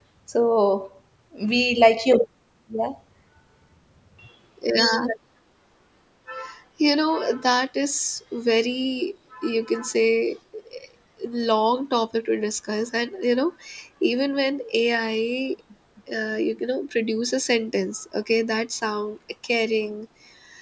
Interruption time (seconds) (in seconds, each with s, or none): none